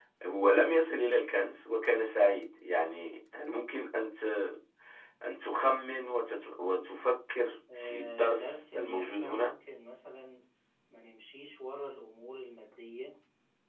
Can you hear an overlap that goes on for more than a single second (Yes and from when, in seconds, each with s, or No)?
Yes, from 7.7 s